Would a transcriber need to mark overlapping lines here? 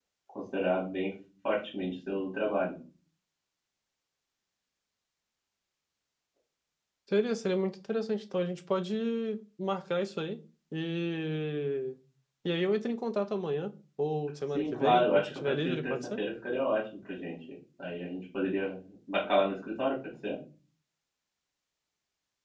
Yes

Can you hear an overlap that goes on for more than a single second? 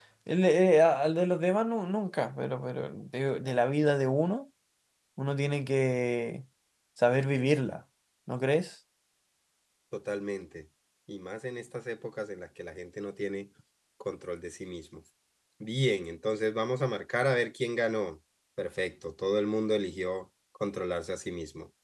No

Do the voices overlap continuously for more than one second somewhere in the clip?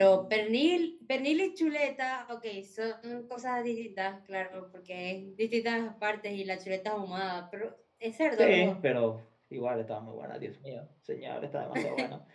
No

